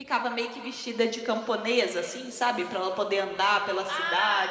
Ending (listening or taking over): taking over